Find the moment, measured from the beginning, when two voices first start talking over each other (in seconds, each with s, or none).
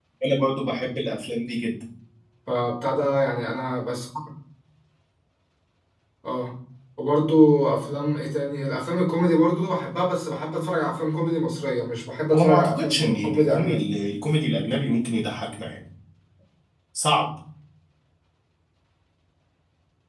12.3 s